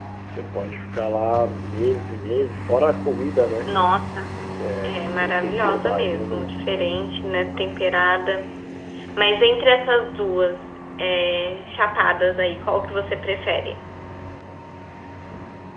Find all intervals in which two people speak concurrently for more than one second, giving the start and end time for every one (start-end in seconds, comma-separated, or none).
4.8-6.5